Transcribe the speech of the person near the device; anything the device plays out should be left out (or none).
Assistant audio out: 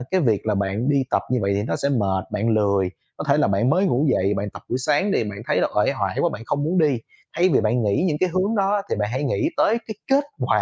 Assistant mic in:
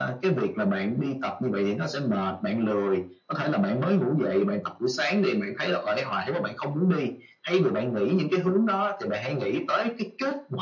none